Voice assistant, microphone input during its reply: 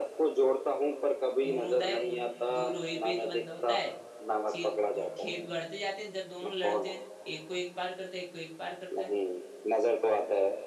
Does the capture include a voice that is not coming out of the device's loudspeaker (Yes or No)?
Yes